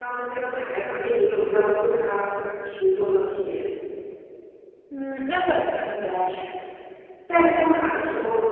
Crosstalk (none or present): none